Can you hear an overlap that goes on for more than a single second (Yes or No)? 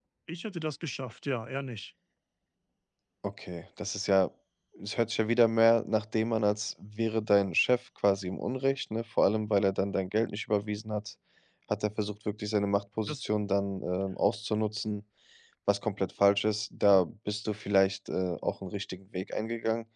No